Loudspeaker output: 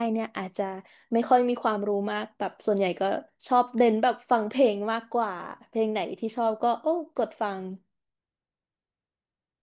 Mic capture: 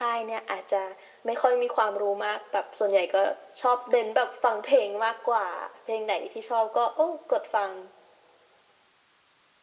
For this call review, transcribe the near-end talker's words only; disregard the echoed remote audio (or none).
none